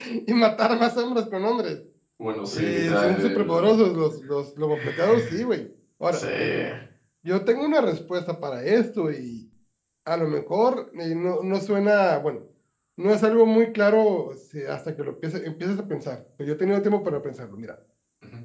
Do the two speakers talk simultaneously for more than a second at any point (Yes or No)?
Yes